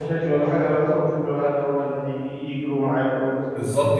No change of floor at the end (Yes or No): No